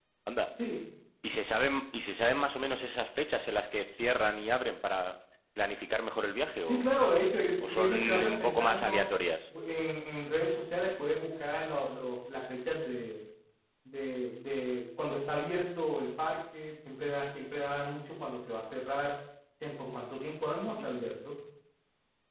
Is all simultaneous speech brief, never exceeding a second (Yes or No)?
No